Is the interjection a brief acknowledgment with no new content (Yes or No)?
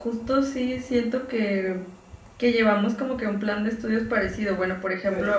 Yes